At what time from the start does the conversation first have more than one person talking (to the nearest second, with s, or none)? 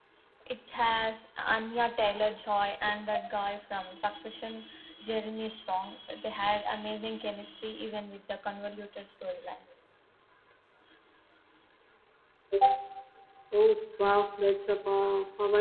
none